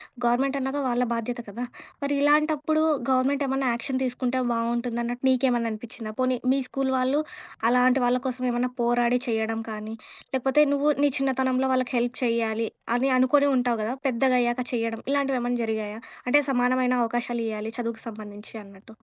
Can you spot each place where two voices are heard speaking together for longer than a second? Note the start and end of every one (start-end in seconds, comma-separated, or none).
none